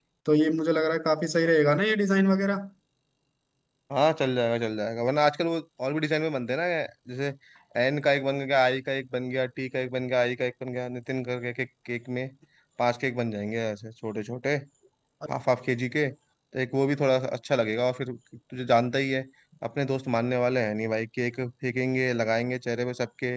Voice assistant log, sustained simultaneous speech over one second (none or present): none